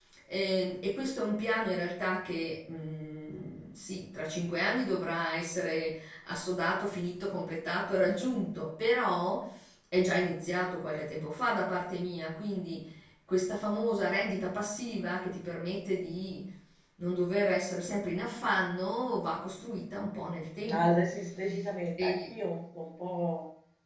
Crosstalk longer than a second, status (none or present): none